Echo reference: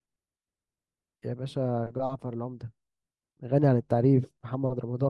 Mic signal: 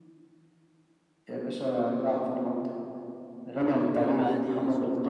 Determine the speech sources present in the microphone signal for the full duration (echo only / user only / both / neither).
both